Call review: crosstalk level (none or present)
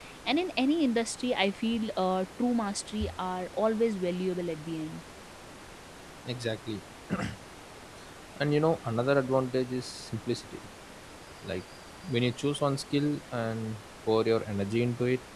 none